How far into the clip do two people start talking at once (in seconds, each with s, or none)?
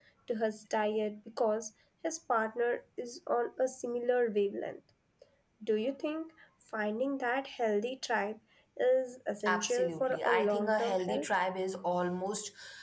9.4 s